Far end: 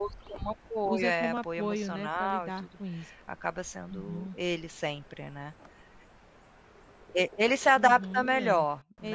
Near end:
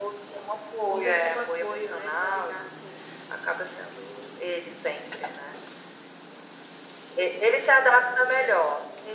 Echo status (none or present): present